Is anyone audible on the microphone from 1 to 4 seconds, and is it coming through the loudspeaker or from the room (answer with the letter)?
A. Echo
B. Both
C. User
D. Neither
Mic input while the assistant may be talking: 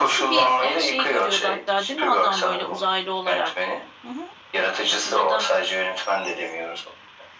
B